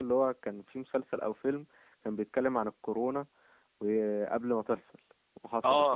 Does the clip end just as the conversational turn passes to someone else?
Yes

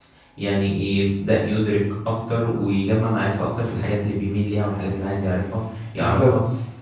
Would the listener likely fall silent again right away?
Yes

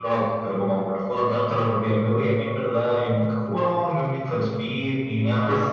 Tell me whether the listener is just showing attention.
No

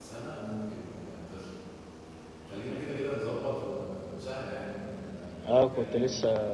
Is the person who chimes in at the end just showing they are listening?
No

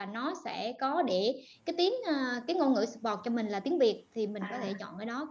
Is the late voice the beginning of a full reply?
No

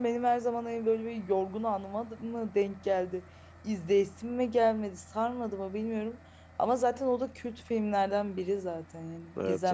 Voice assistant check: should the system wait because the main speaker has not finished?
No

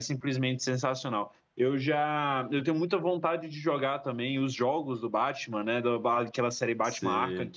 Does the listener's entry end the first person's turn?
No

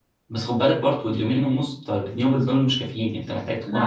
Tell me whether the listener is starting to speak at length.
Yes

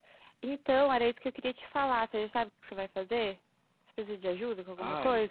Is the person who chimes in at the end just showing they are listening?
No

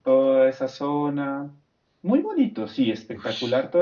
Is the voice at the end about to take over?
Yes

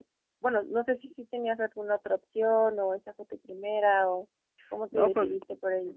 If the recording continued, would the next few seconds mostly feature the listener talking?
Yes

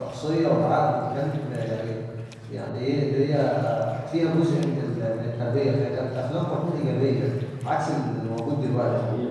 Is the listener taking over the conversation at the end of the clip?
Yes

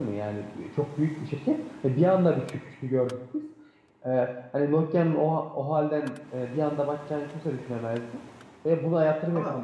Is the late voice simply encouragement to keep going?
Yes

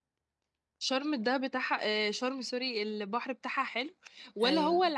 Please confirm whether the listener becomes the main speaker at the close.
No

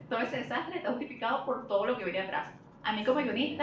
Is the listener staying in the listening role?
Yes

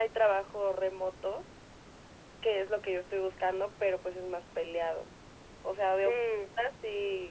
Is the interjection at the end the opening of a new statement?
No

